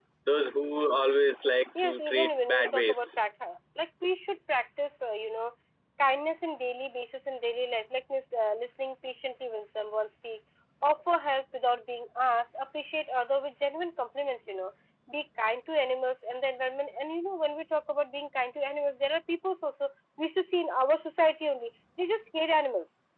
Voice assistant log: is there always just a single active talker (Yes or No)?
No